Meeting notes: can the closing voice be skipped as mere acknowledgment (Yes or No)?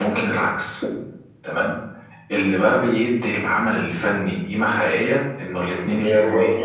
No